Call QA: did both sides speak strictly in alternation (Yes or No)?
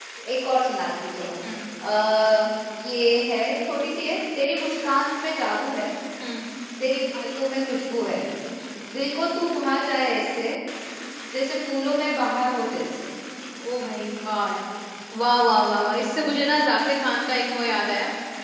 Yes